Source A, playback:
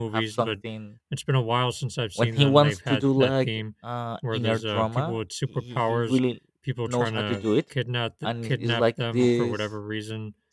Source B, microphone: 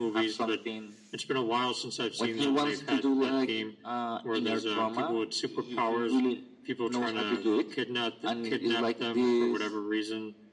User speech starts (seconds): none

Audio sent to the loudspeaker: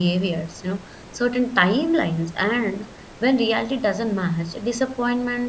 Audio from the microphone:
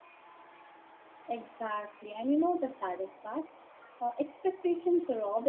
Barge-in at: 1.3 s

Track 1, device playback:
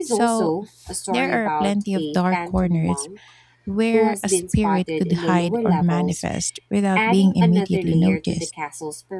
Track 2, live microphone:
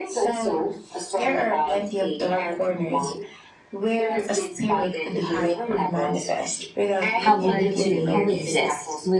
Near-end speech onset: 7.2 s

